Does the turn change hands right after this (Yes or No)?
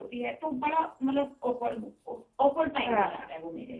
No